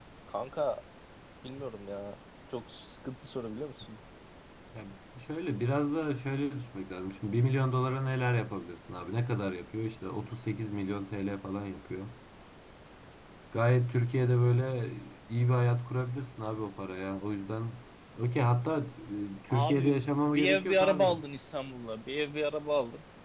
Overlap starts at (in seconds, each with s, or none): 19.5 s